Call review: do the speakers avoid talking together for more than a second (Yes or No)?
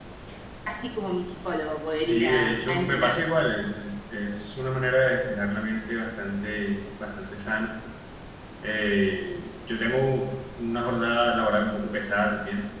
No